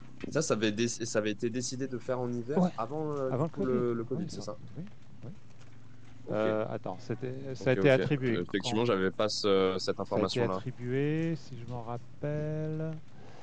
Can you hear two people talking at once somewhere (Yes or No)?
Yes